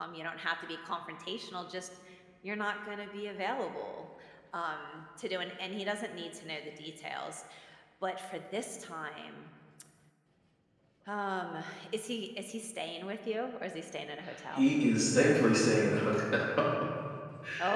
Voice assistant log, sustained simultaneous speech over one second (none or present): none